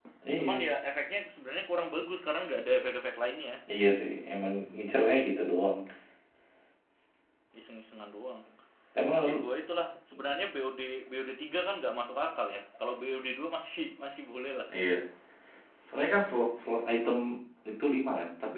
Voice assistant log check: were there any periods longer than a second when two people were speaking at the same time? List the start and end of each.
none

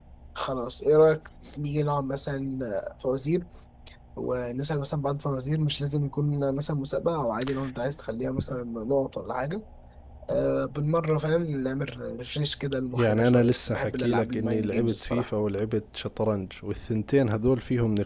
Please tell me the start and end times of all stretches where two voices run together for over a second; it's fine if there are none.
12.9-15.3

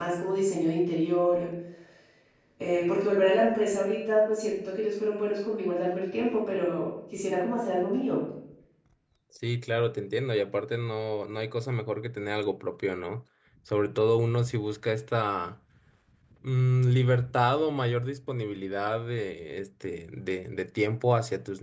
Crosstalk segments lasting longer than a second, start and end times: none

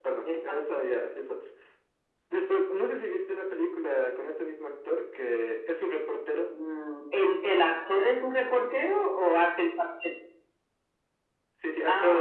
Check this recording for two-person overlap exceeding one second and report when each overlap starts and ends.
none

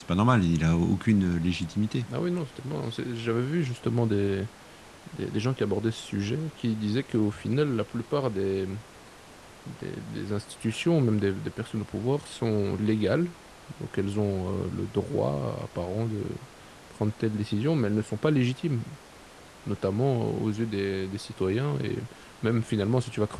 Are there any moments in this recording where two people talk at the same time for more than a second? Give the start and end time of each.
none

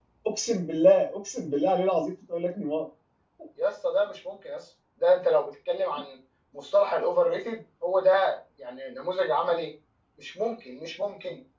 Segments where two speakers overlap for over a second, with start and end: none

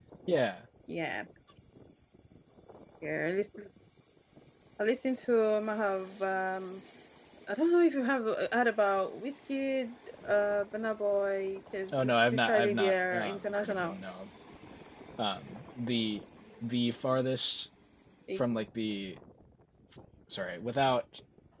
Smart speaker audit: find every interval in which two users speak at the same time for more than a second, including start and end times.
11.9-14.0

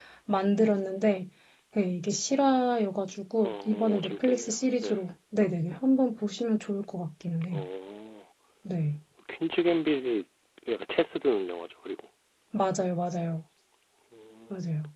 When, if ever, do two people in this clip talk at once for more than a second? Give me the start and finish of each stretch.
3.4-5.0

